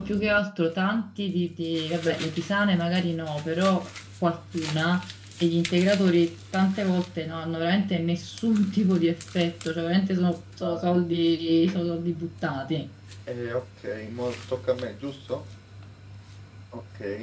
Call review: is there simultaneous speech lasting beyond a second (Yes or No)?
No